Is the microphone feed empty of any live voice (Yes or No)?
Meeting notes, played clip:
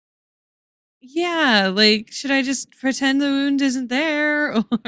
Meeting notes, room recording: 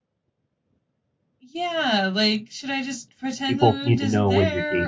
No